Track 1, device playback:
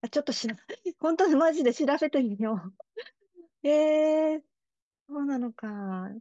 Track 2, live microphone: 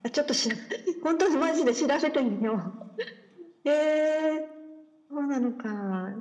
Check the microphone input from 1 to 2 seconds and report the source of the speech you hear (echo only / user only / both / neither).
echo only